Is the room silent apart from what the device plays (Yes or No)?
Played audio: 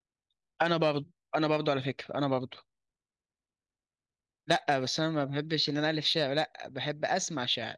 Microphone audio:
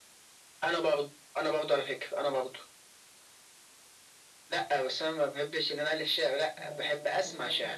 No